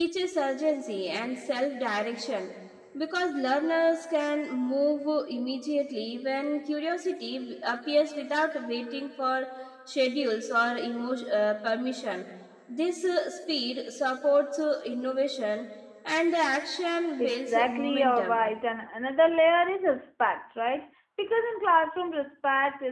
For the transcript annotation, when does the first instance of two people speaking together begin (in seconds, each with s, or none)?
17.2 s